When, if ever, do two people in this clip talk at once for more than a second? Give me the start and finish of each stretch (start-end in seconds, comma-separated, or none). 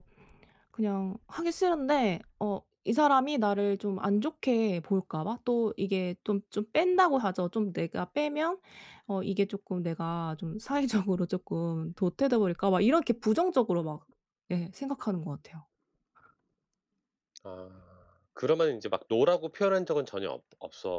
none